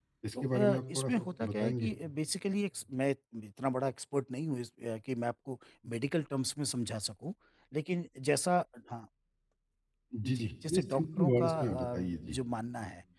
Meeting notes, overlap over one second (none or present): present